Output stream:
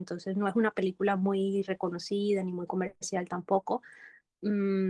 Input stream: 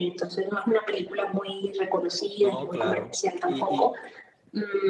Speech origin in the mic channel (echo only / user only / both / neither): both